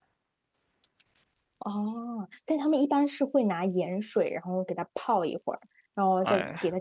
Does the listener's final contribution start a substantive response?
No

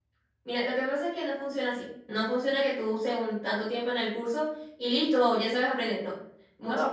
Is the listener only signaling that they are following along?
No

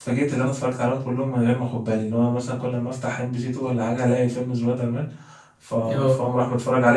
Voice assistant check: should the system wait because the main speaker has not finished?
Yes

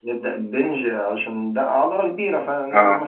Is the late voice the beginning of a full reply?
No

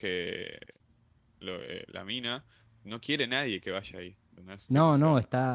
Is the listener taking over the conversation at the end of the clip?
Yes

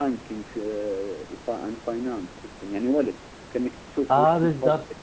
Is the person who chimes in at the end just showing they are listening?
No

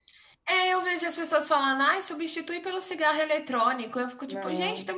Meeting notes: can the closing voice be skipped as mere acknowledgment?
Yes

